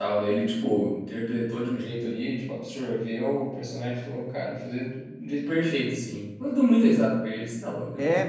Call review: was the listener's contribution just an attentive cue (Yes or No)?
No